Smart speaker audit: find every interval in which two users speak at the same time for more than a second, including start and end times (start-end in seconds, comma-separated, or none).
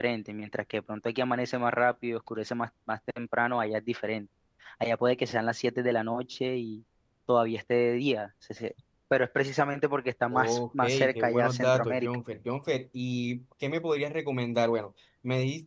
10.3-12.1